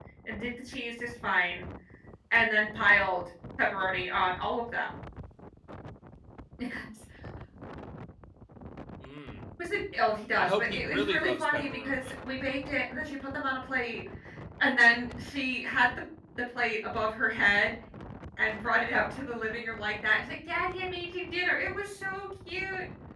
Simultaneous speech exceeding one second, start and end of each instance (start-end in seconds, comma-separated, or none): 10.4-12.1